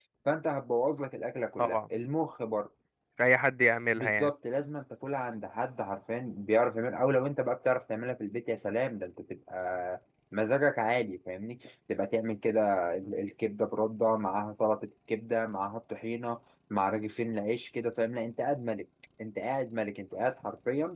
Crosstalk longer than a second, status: none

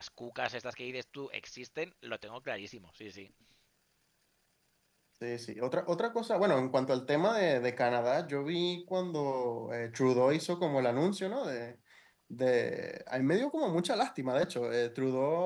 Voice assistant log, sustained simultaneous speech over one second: none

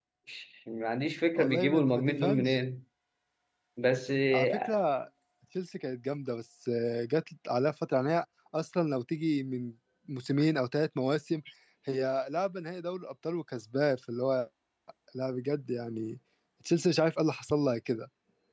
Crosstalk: present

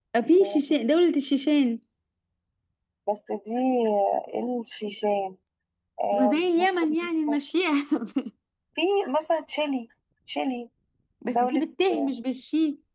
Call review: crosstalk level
present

